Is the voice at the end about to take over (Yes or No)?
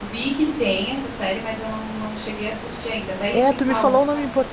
Yes